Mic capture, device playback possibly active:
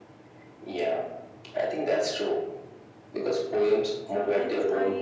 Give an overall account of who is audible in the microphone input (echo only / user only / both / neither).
both